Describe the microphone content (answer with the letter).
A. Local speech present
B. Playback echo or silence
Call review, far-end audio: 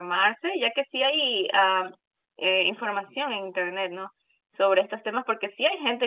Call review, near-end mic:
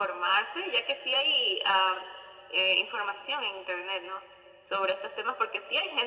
B